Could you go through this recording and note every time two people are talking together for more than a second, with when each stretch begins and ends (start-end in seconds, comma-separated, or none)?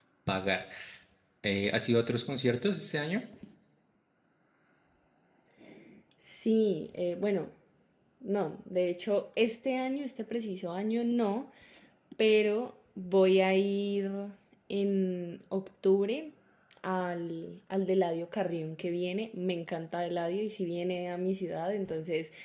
none